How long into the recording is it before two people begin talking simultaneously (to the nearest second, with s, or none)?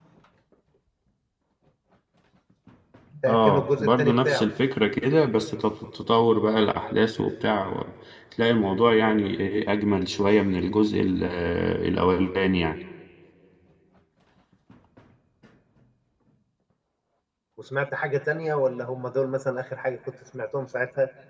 3 s